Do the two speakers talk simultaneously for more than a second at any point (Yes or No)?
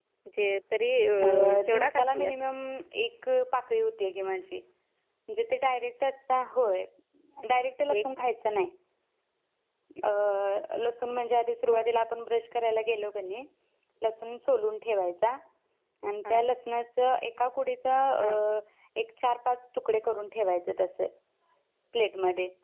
Yes